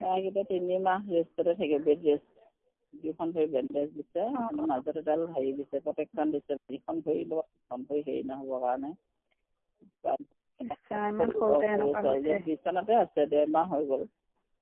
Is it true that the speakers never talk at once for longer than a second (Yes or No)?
No